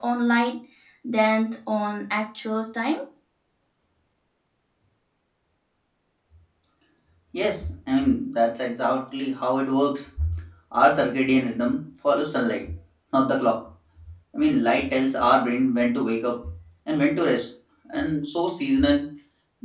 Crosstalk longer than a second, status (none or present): none